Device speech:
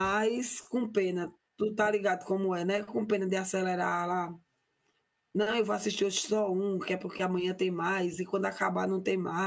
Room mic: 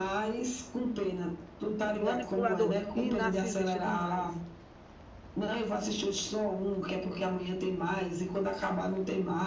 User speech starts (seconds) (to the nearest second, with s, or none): 2 s